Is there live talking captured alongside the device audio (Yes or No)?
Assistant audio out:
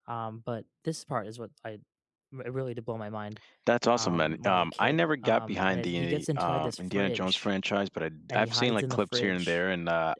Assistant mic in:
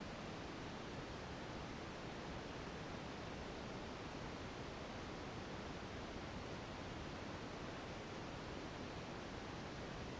No